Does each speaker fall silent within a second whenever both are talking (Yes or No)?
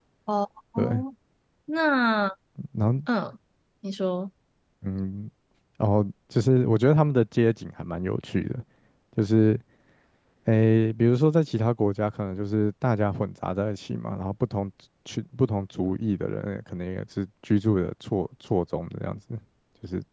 Yes